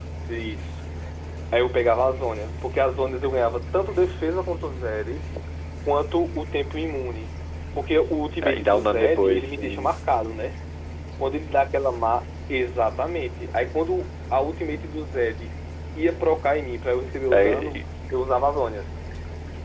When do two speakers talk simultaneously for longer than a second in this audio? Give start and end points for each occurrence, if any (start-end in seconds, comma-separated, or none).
8.4-9.9